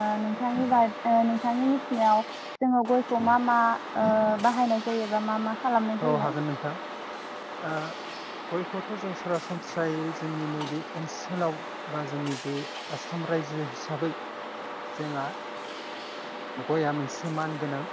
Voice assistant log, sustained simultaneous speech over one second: none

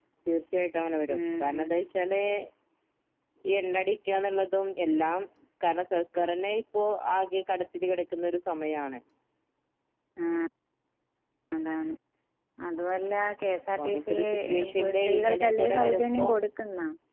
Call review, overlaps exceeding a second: present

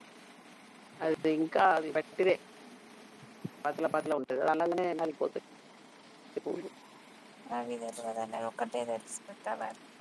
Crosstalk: none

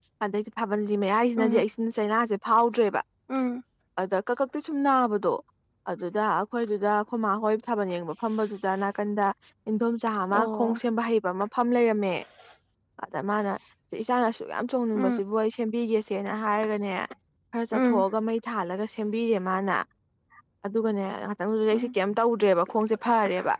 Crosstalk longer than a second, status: none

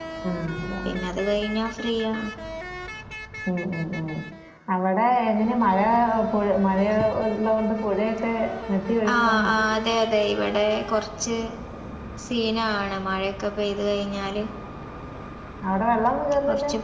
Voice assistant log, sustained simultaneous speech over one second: none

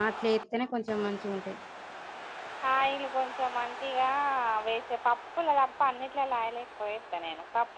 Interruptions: none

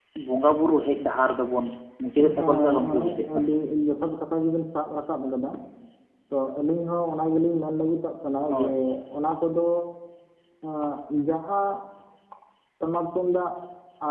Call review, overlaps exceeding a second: present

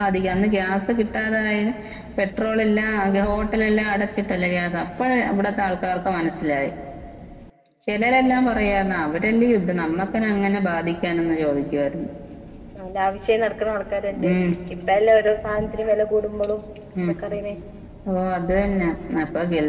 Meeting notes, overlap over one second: none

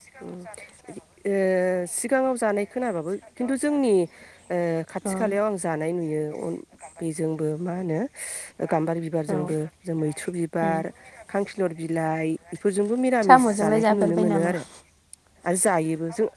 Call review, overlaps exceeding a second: present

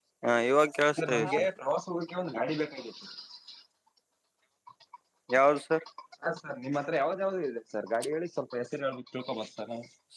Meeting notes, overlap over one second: none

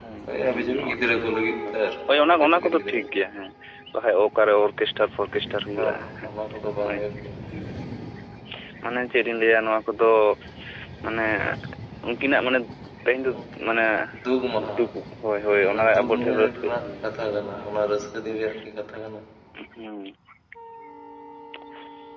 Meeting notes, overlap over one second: present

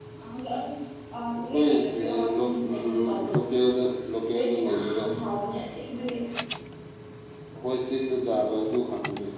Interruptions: present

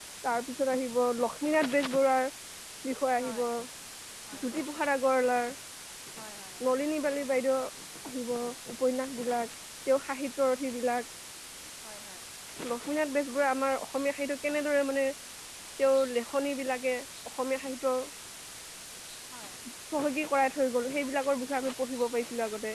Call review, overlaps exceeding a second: none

